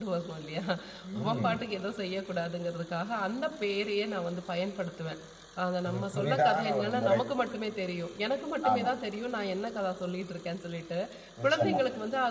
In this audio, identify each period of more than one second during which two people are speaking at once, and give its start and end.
5.9-7.2

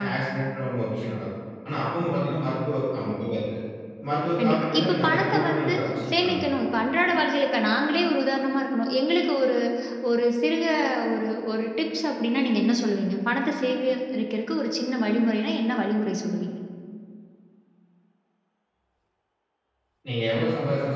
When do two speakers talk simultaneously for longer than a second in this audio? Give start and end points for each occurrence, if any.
4.4-5.7

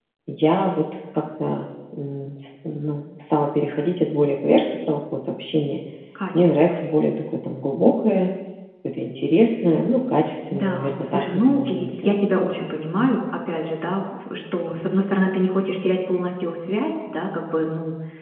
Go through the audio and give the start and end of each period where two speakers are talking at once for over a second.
10.5-12.2

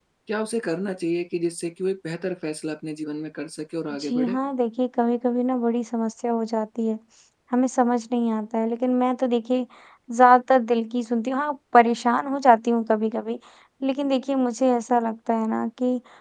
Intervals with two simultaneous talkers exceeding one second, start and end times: none

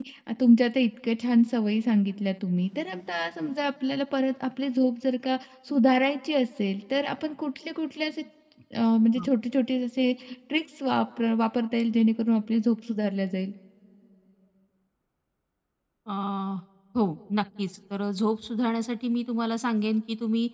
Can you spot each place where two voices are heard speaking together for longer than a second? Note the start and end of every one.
none

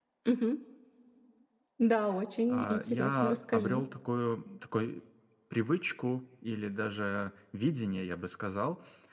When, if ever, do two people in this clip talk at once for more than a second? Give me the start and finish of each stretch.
2.5-3.8

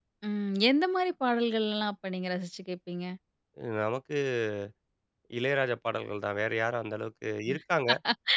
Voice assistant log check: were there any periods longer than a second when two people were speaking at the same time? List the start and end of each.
none

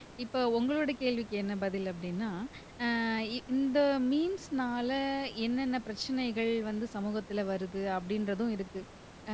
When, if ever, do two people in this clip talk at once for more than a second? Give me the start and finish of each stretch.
none

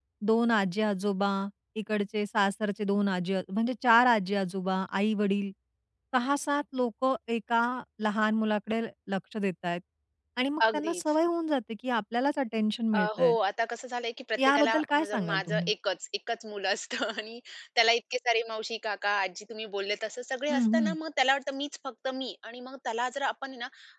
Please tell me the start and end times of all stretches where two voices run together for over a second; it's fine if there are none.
14.4-15.7

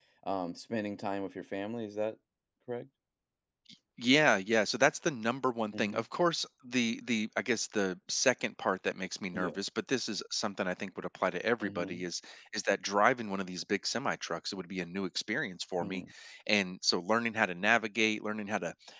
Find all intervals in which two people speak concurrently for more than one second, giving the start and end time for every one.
none

